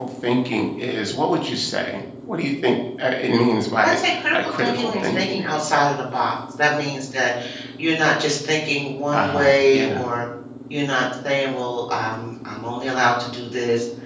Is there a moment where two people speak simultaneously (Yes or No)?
Yes